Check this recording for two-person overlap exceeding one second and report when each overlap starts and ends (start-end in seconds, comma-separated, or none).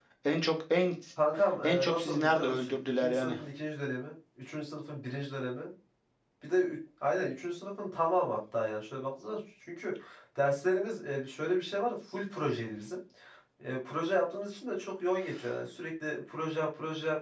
1.6-3.3